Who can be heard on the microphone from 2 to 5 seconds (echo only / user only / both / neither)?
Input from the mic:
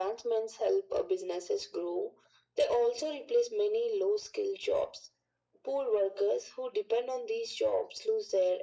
echo only